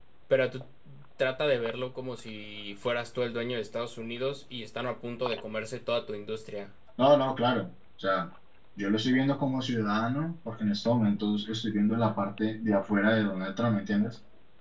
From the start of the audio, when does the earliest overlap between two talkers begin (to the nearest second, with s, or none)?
none